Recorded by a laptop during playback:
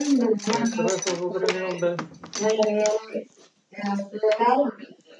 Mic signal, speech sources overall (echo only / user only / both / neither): both